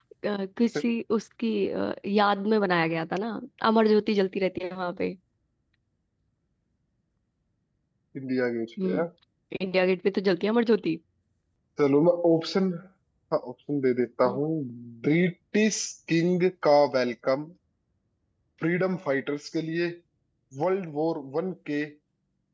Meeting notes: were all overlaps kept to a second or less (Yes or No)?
Yes